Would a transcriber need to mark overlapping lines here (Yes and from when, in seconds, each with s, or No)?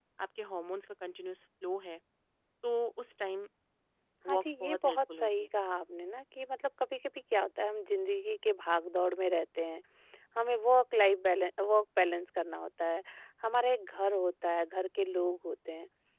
Yes, from 4.3 s